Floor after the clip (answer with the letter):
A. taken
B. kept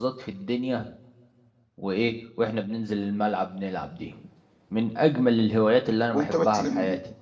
A